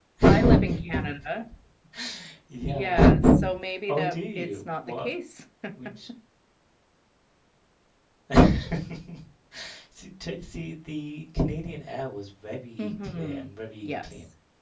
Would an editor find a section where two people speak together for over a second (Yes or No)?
Yes